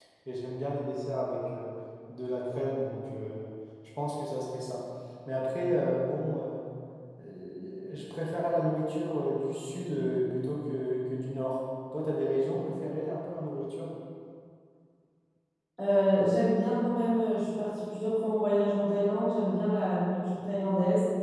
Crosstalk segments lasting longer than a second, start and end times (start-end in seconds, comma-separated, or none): none